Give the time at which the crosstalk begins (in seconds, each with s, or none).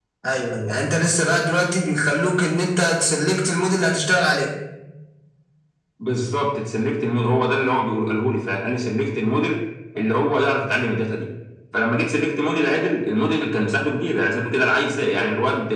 none